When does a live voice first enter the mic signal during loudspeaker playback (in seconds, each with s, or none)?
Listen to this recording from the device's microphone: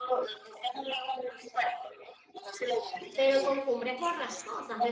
3.1 s